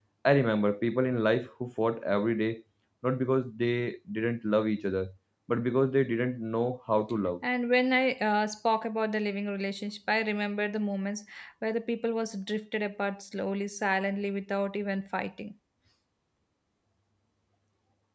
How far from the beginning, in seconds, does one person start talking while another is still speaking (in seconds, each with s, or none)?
none